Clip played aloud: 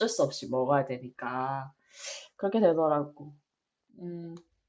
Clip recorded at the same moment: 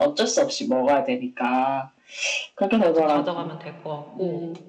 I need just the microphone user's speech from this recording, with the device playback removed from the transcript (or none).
그것 좀 가져가면 될 것 같고.